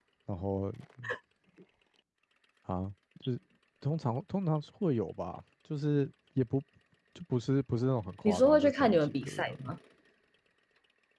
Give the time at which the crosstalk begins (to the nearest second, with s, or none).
8 s